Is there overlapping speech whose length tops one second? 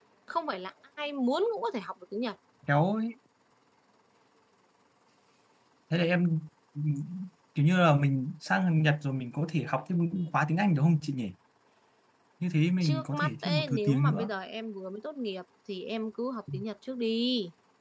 Yes, from 12.8 s

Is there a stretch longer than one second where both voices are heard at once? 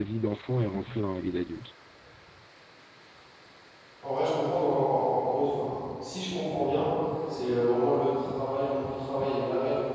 No

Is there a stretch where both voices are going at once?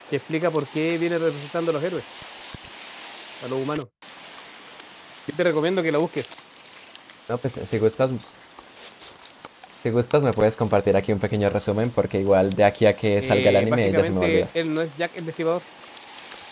Yes, from 13.2 s

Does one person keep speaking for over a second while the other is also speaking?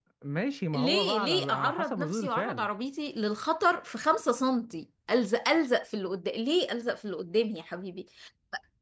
Yes, from 0.7 s

